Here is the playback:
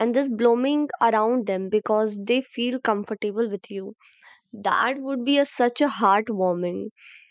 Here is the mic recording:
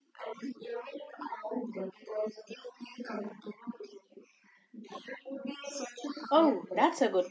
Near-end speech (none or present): present